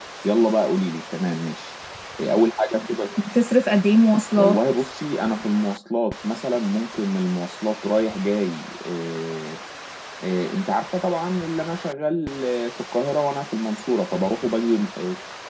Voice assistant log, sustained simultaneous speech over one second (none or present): none